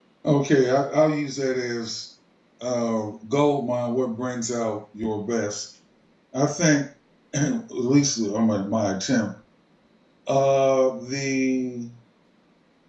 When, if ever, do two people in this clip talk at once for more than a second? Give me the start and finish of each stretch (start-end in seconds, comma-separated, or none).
none